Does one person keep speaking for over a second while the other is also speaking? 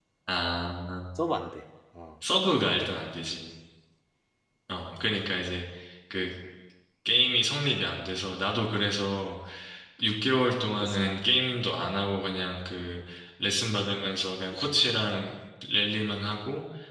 No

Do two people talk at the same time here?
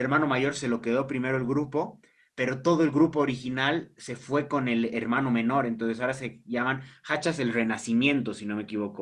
No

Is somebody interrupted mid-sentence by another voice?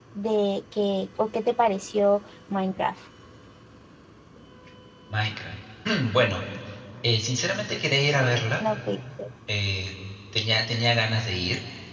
No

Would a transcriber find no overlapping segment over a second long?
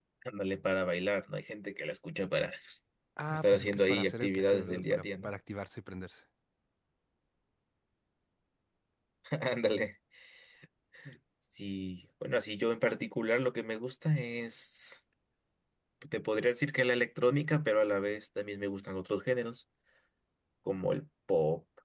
No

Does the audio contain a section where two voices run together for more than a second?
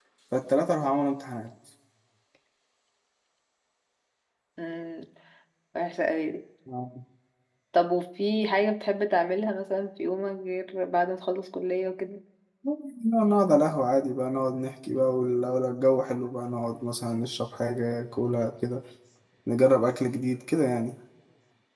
No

